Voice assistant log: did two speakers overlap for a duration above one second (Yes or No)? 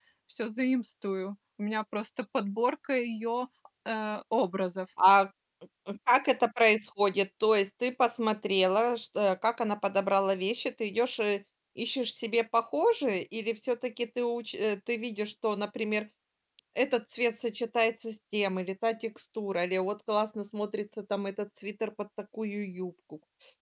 No